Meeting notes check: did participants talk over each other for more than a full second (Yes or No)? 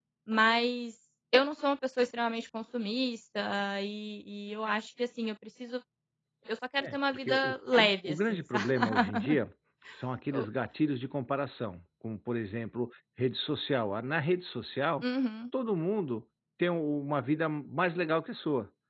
Yes